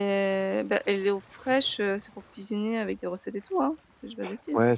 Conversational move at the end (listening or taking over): taking over